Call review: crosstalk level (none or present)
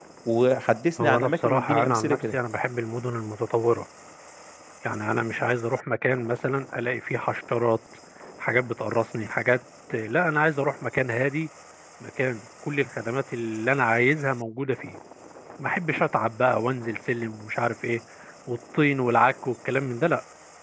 present